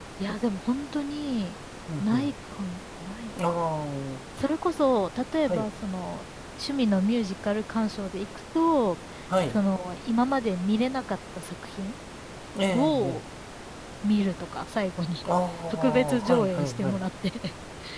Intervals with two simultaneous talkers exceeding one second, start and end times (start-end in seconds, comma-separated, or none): 15.7-17.1